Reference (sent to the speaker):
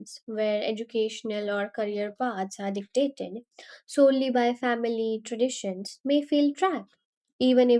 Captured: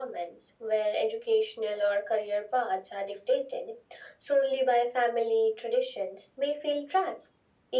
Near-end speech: none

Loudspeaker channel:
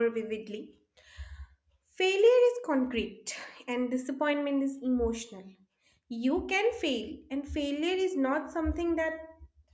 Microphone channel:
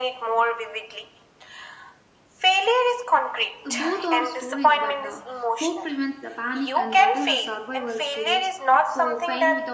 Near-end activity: present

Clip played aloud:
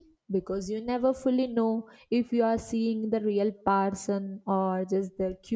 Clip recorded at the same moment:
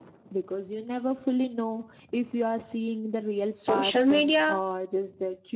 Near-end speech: present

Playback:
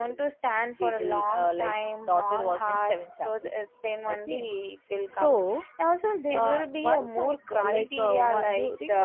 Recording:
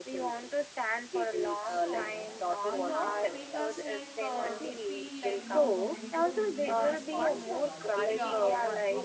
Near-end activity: present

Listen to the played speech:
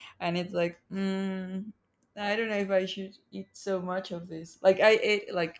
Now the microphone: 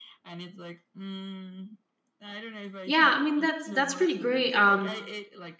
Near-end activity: present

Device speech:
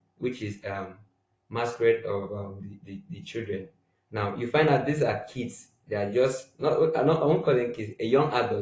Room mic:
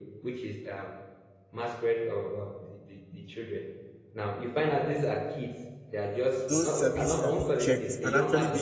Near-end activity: present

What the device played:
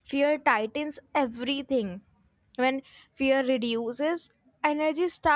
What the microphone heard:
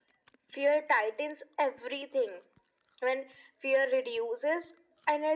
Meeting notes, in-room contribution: none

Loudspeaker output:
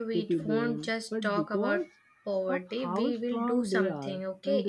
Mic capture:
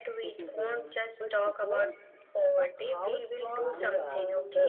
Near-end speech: present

